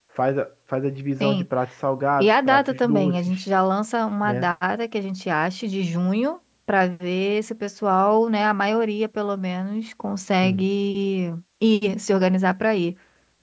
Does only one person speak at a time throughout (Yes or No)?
No